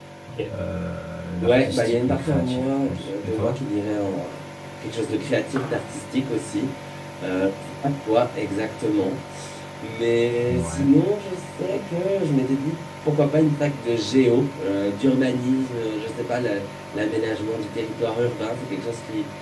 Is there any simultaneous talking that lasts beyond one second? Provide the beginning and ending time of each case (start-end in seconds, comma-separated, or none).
1.4-3.6